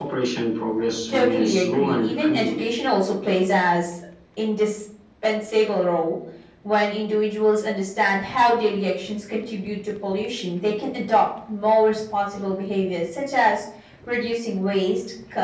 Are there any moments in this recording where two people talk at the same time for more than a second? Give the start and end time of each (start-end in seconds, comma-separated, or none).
1.1-2.6